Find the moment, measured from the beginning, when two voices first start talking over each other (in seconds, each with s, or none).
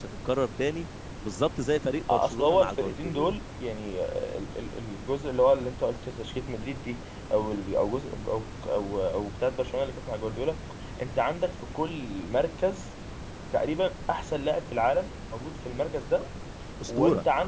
2.1 s